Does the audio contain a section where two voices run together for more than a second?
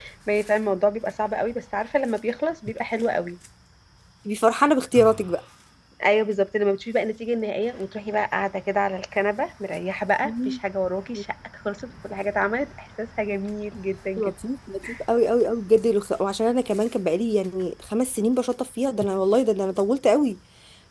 No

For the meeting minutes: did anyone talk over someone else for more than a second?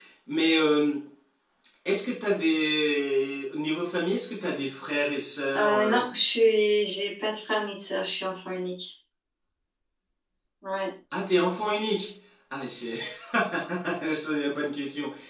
No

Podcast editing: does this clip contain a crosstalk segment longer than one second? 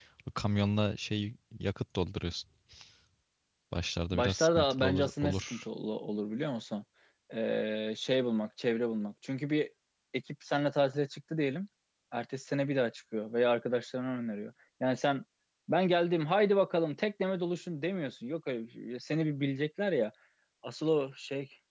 Yes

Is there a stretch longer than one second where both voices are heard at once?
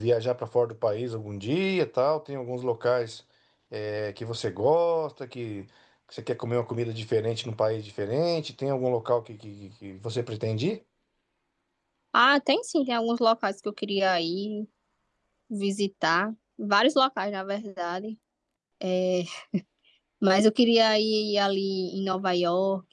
No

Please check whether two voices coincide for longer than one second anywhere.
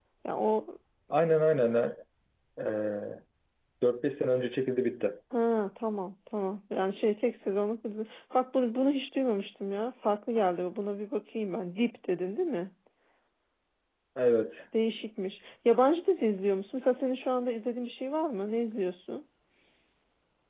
No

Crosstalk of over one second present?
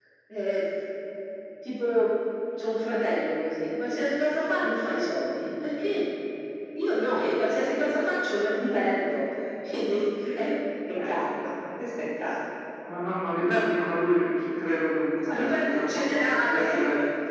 Yes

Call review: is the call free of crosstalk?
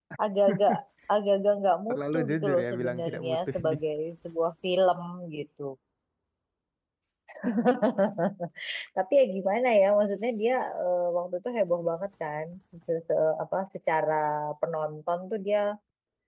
No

